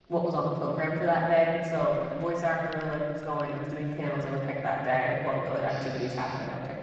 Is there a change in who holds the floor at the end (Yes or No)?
No